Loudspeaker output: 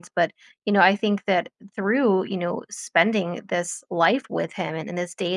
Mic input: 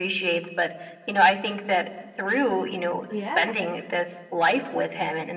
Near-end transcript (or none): Yeah.